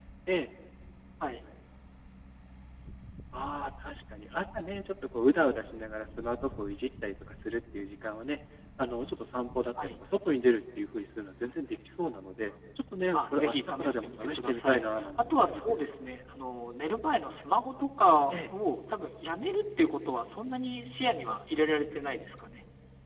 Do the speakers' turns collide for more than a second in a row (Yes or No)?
Yes